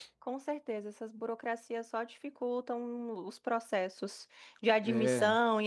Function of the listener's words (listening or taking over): listening